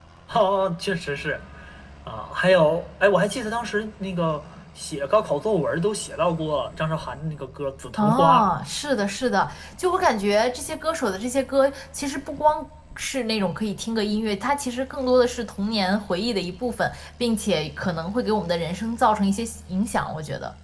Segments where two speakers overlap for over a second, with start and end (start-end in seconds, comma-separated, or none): none